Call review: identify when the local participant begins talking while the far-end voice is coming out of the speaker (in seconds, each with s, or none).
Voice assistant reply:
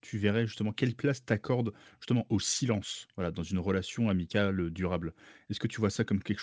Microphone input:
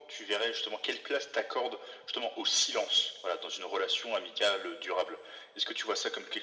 none